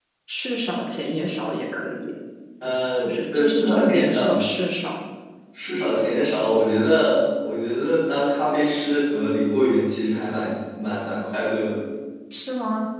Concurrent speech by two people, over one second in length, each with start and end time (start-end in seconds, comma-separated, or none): 3.0-4.4